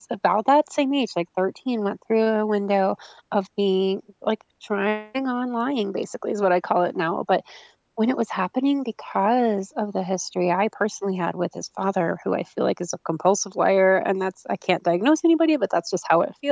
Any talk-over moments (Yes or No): No